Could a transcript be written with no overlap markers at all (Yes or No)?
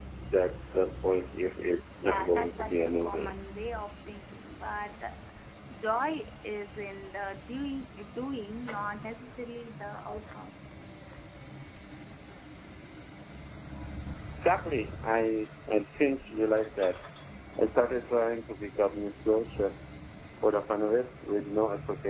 No